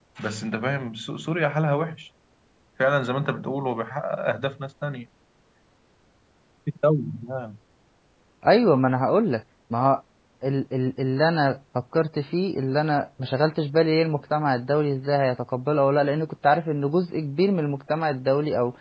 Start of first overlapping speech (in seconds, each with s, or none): none